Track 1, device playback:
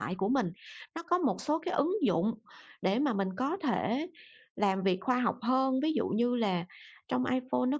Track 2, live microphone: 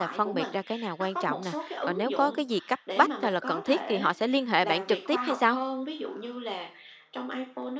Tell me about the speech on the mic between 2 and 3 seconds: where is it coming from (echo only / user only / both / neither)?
both